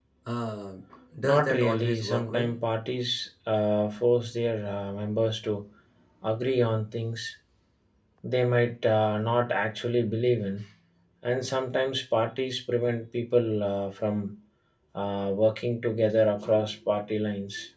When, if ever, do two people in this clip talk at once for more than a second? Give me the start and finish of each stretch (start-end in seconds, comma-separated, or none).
1.2-2.6